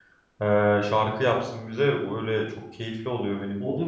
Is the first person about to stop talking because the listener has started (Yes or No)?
Yes